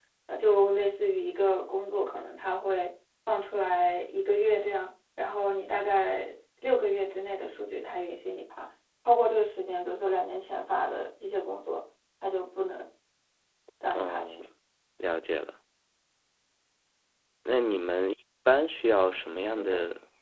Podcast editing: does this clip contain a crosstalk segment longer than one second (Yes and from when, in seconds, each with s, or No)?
No